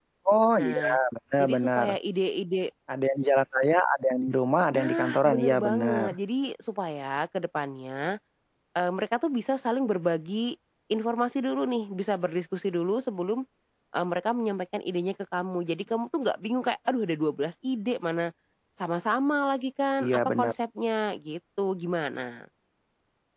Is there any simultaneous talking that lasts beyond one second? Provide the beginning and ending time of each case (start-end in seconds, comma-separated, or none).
4.7-6.1